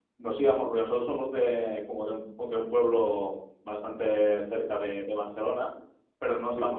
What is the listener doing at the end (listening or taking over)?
listening